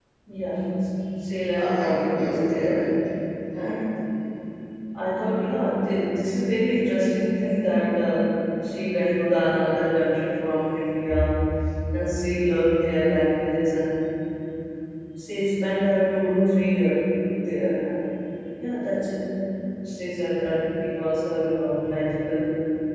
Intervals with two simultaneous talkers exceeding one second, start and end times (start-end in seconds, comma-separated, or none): 1.5-2.9